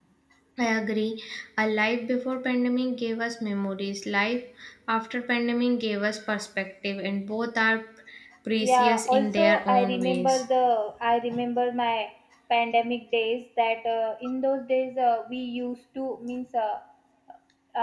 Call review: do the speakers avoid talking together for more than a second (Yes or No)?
No